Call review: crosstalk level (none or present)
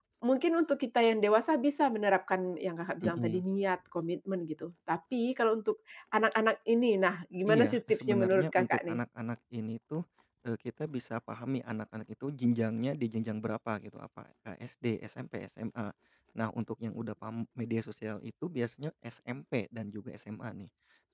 present